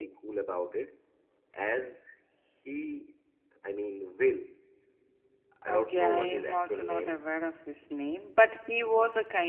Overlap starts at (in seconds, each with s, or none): 5.7 s